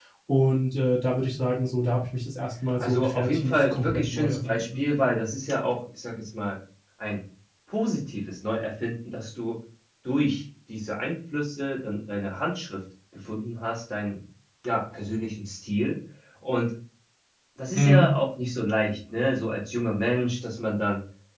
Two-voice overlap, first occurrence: 3 s

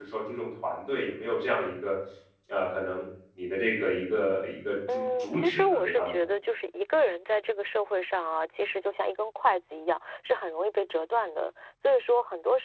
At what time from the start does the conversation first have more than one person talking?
5 s

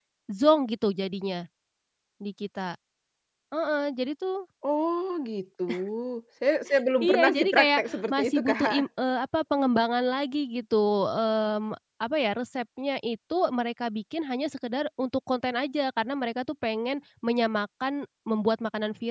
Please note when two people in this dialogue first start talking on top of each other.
7 s

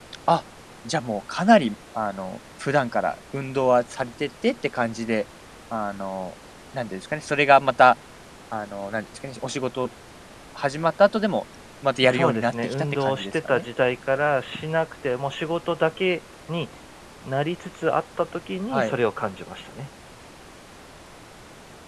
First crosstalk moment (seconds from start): 12 s

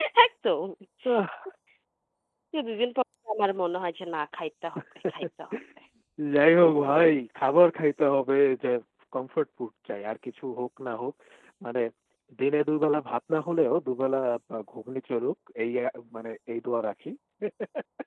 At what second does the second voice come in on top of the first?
none

